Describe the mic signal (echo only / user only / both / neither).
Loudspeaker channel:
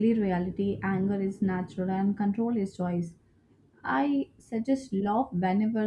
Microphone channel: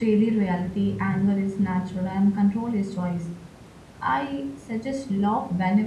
echo only